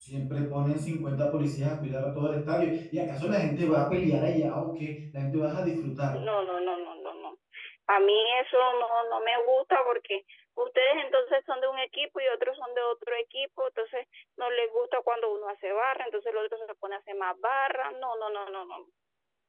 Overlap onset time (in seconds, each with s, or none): none